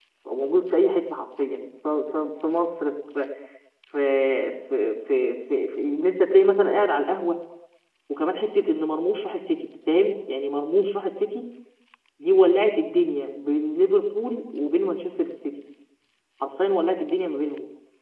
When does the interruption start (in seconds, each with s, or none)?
none